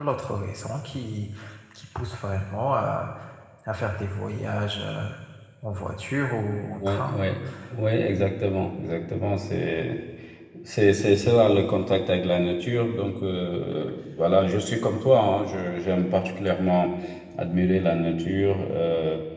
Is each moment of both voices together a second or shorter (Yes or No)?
Yes